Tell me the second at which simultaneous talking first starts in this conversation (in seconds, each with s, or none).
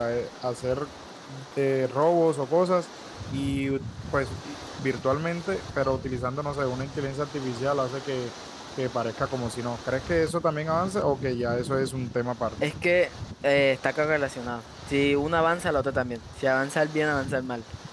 none